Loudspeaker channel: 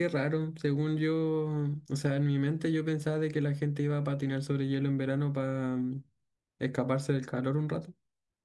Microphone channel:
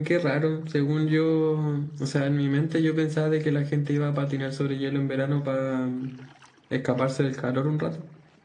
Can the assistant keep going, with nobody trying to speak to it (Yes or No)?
Yes